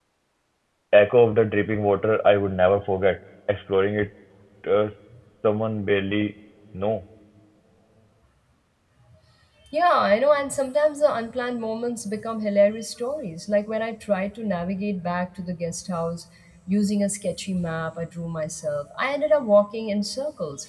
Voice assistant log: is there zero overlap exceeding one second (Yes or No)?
Yes